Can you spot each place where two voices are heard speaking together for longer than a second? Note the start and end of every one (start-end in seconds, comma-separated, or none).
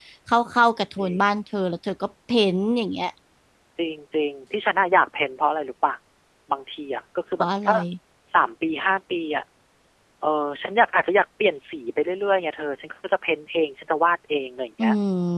none